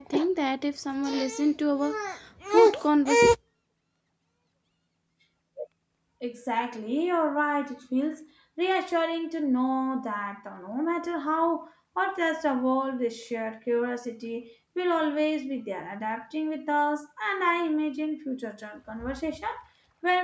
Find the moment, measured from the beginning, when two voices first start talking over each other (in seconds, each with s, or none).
none